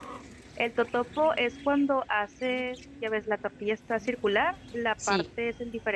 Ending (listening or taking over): listening